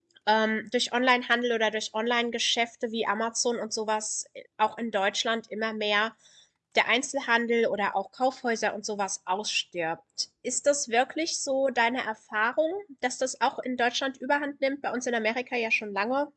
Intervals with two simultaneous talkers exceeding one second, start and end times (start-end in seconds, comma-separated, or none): none